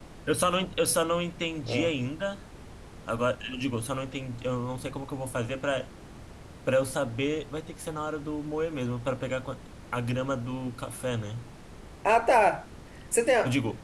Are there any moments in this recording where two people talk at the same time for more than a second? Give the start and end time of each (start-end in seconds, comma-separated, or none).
none